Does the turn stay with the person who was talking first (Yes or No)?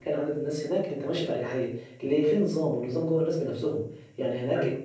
Yes